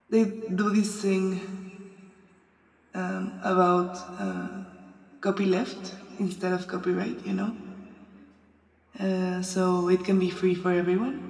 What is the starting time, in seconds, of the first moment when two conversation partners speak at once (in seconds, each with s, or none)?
none